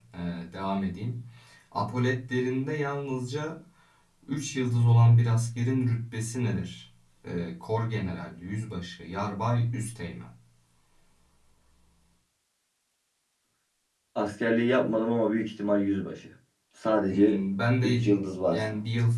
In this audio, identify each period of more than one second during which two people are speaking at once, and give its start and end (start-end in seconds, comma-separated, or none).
none